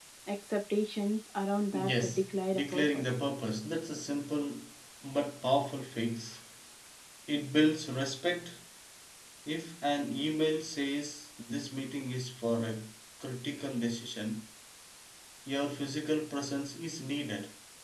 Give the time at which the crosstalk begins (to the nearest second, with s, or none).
2 s